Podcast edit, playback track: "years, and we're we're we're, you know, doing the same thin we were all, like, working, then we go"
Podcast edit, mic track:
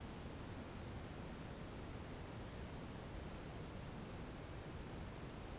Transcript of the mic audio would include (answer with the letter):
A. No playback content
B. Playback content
A